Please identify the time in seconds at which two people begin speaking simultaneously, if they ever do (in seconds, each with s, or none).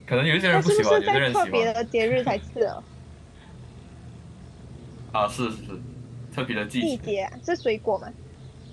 0.5 s